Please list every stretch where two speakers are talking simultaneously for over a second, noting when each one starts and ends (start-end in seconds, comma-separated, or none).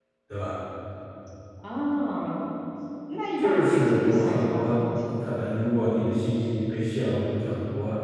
3.4-4.7